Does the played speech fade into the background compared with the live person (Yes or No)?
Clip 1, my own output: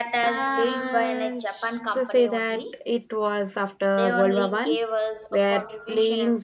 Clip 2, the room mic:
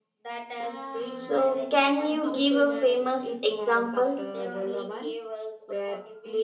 Yes